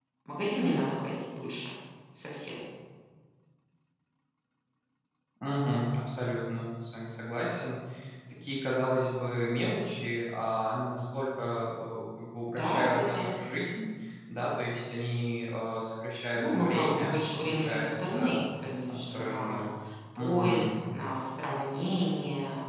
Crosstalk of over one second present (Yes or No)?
Yes